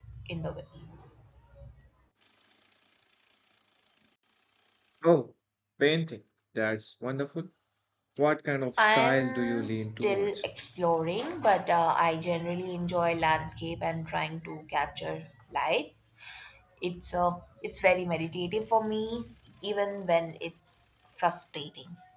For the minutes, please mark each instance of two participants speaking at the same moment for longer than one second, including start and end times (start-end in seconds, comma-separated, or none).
8.8-10.4